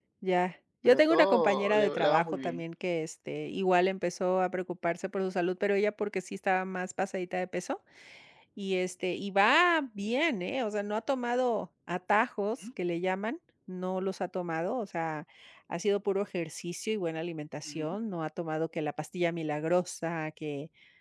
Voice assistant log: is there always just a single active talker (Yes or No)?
No